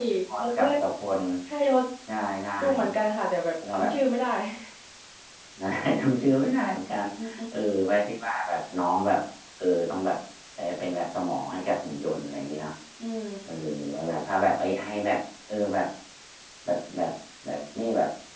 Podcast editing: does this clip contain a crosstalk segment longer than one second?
No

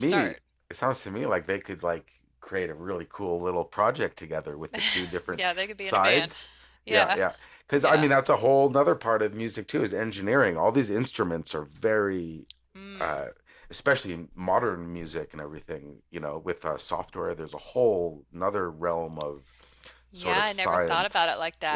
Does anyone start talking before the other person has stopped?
Yes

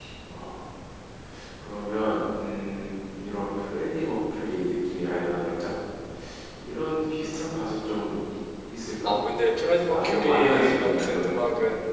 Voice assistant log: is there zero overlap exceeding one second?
No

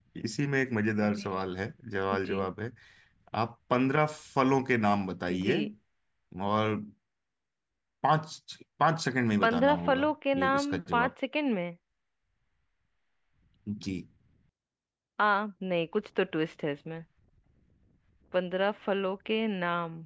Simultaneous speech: Yes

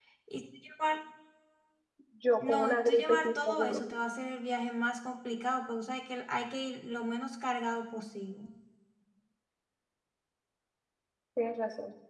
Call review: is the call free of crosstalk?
No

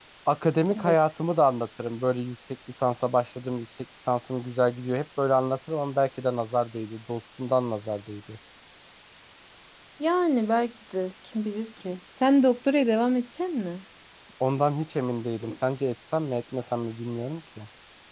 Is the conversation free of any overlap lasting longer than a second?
Yes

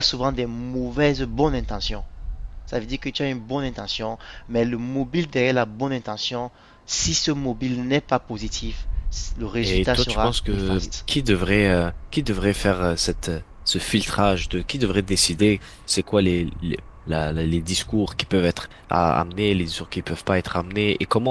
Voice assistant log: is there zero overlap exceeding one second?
No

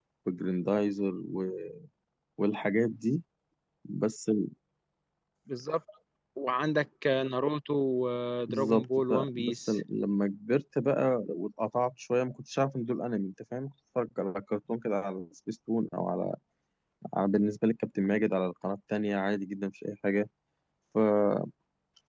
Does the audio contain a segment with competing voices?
Yes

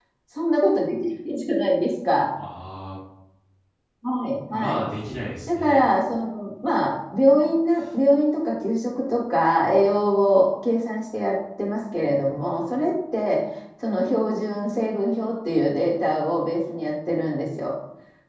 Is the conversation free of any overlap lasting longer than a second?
Yes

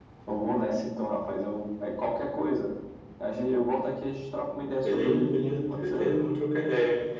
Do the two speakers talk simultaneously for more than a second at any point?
Yes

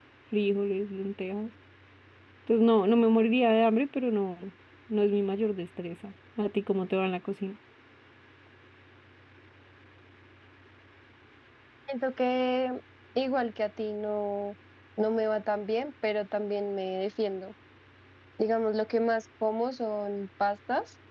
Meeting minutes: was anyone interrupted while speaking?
No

